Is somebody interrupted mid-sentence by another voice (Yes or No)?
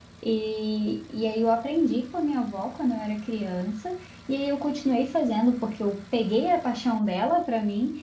No